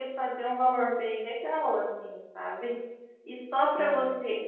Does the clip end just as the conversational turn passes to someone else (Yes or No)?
No